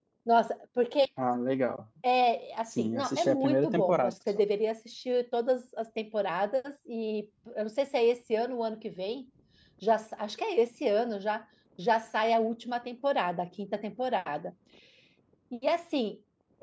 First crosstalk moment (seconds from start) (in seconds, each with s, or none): 2.7 s